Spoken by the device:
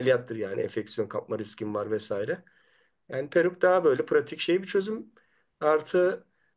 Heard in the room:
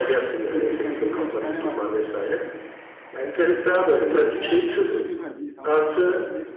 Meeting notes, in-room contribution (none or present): present